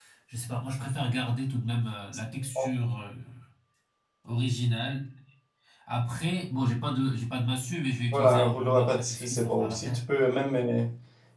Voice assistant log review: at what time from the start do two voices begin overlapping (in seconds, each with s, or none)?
8.1 s